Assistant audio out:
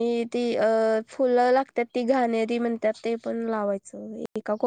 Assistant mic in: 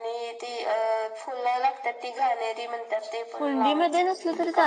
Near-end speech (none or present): present